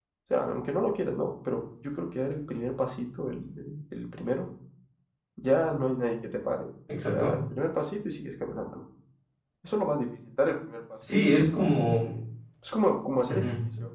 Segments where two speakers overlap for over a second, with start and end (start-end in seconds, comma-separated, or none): none